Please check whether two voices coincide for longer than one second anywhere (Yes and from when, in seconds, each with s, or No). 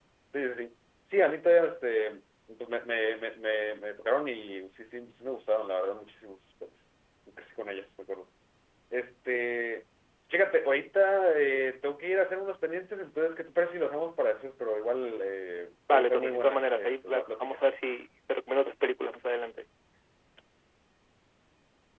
Yes, from 15.9 s